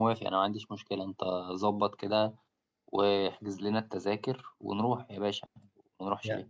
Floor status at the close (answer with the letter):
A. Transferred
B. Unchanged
A